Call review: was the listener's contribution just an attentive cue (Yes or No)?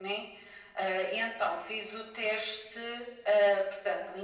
Yes